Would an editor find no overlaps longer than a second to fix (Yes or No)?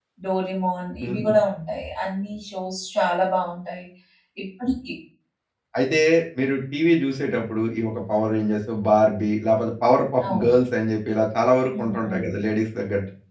Yes